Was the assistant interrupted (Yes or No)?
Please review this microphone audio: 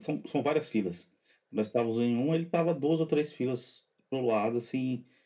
No